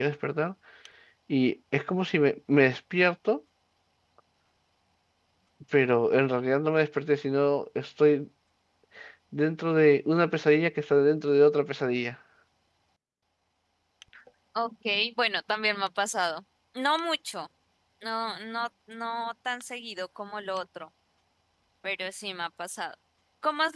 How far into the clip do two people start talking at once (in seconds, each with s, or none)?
none